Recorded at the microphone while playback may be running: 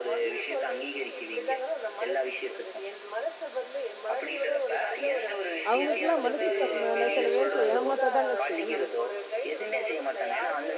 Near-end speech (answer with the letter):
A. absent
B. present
B